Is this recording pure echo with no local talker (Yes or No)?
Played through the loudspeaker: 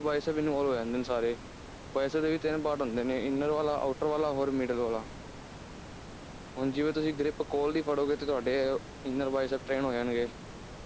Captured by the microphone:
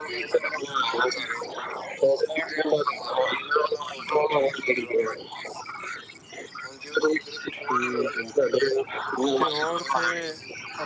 No